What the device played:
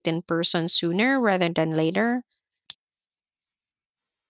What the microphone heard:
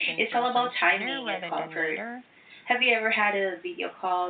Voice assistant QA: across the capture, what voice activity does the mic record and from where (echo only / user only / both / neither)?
both